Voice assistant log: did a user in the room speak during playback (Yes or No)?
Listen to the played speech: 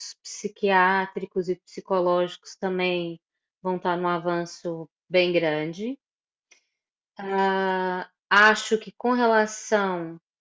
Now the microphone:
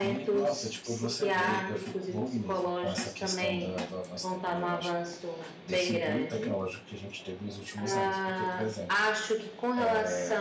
Yes